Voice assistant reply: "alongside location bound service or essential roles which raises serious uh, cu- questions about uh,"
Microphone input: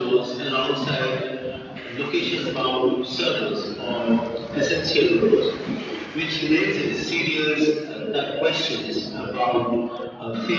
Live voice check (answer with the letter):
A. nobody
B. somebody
A